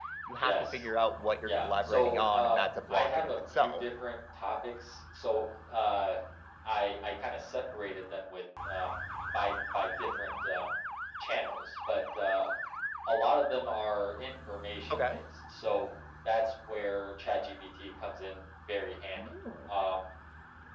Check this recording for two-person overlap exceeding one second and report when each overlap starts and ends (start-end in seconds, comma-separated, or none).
1.5-3.9